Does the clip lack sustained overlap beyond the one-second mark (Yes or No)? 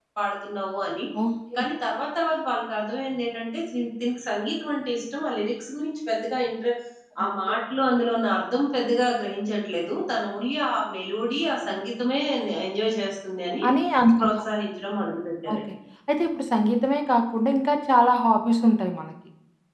Yes